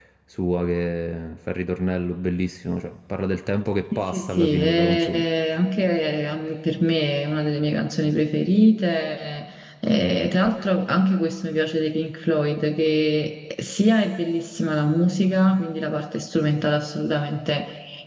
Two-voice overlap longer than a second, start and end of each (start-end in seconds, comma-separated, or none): 4.0-5.2